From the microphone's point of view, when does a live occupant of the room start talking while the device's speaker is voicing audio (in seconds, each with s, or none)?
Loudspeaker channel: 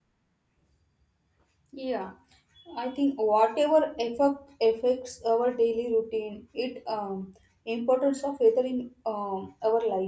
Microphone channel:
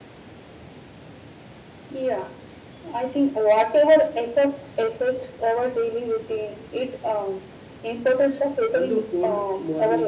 8.7 s